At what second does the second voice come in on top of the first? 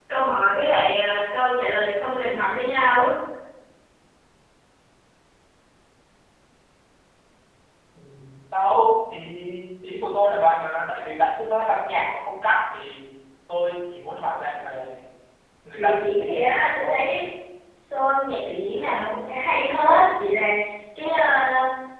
15.8 s

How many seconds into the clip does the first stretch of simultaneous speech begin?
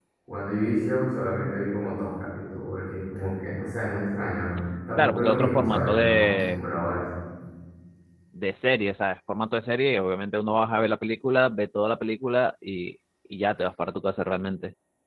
5.0 s

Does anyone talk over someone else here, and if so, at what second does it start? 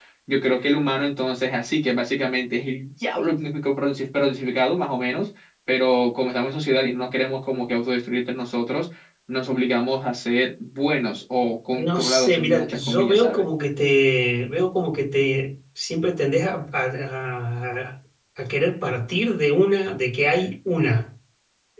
11.8 s

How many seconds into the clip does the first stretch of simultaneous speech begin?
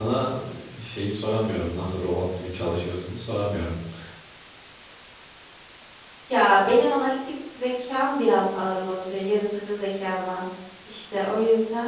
none

